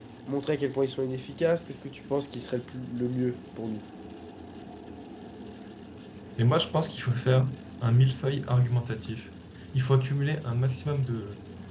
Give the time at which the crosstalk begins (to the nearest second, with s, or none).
none